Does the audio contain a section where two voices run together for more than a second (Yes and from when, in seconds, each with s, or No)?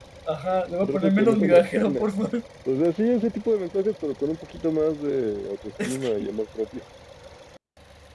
Yes, from 0.8 s